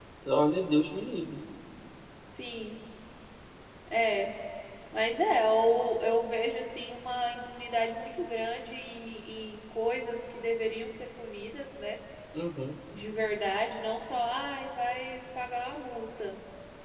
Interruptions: none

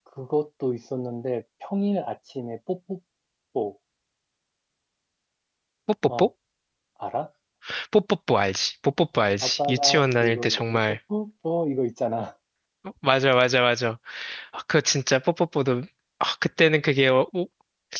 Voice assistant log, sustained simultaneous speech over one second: present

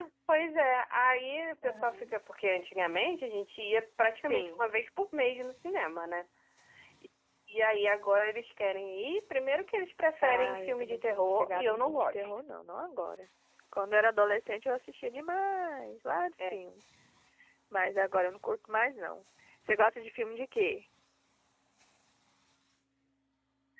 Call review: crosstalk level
present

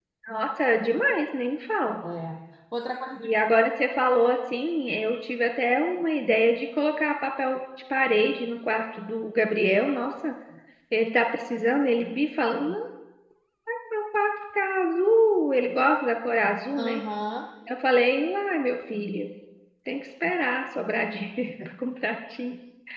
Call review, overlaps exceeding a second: none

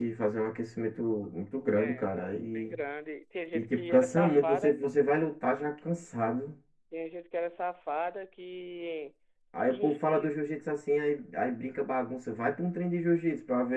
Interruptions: present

